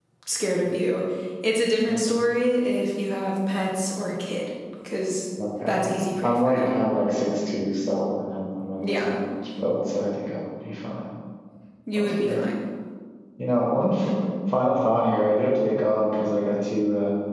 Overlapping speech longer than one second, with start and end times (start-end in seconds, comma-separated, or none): none